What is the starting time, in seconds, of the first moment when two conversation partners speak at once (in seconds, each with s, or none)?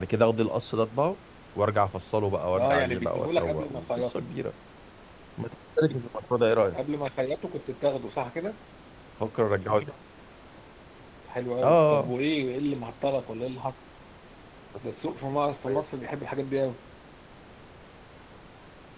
2.6 s